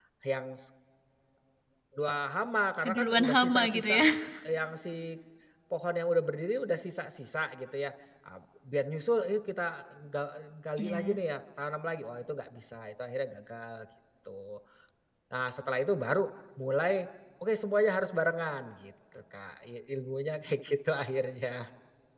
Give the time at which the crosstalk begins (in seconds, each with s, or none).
2.8 s